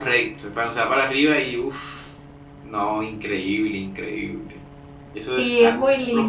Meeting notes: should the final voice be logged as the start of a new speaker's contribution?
Yes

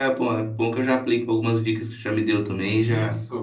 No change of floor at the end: No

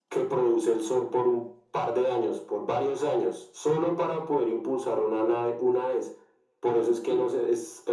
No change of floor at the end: Yes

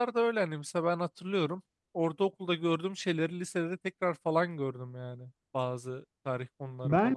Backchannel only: No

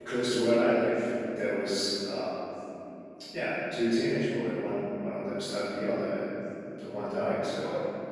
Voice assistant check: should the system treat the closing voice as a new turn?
Yes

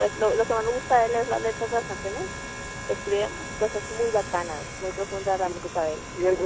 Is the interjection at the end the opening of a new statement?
Yes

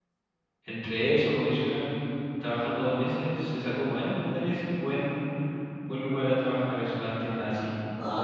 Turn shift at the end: Yes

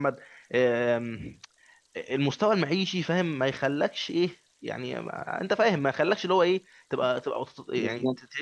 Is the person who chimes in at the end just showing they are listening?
Yes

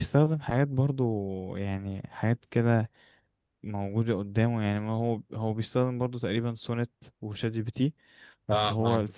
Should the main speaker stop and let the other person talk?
No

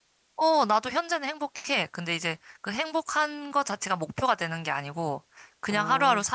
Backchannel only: Yes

